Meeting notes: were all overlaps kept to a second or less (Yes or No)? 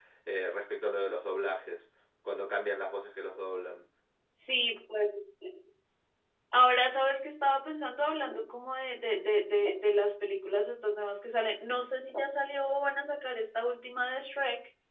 Yes